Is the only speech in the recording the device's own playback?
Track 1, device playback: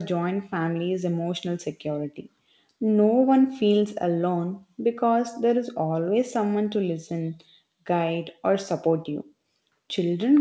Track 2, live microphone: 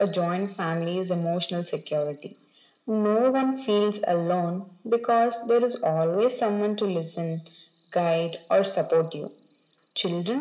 Yes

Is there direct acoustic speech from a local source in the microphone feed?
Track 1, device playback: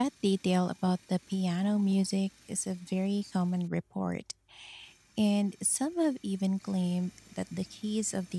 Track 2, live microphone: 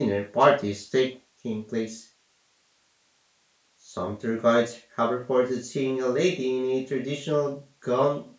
Yes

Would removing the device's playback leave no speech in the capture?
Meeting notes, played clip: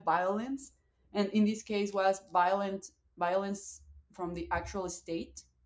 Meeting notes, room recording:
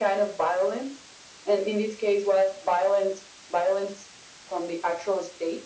Yes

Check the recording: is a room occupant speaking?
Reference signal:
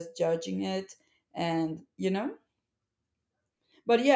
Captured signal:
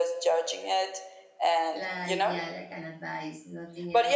Yes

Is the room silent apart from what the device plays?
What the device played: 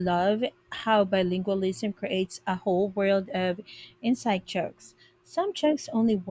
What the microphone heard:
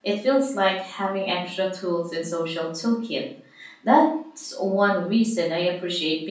No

